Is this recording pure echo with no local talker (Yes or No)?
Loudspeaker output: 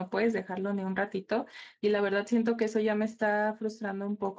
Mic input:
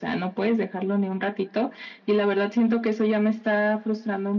Yes